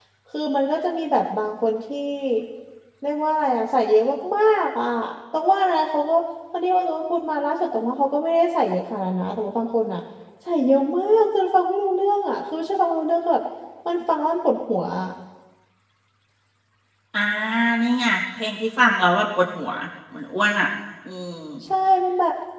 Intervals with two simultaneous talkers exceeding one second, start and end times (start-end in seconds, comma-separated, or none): none